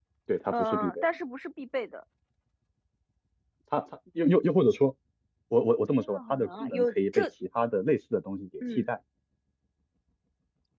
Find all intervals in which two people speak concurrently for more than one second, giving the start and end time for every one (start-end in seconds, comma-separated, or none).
6.0-7.2